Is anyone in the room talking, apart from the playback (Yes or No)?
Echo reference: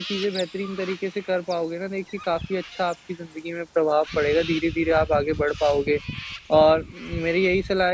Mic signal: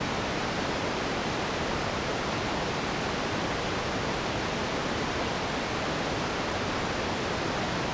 No